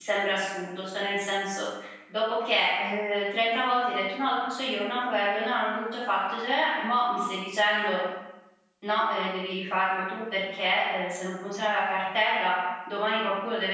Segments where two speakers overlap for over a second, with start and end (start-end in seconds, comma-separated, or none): none